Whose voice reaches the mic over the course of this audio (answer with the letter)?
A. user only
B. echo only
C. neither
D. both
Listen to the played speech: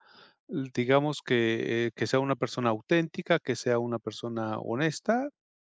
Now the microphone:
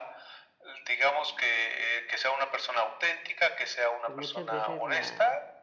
D